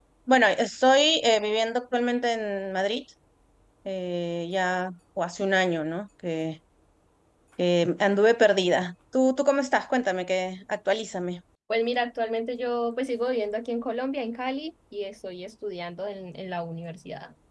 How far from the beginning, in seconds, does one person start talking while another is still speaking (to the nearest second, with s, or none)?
none